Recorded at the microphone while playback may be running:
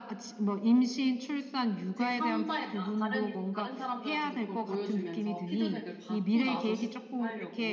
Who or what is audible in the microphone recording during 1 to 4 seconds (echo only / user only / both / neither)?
both